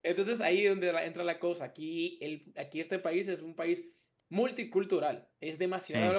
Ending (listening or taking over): listening